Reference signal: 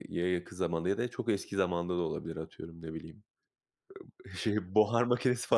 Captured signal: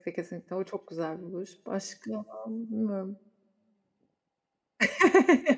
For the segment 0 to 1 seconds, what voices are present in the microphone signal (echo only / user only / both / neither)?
user only